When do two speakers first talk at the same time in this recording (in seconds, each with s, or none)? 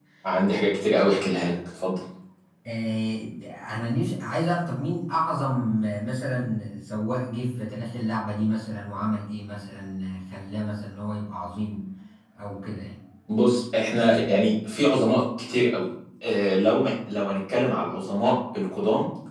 none